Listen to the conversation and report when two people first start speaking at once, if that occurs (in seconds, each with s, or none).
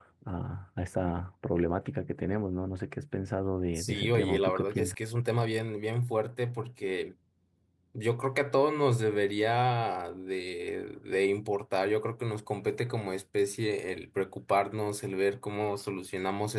3.8 s